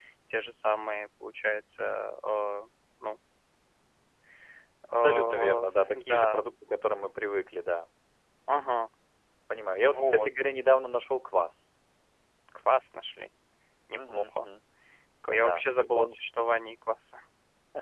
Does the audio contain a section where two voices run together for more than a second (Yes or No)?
Yes